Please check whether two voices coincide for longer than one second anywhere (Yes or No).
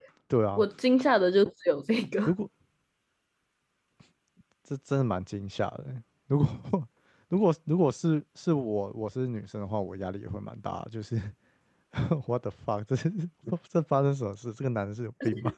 No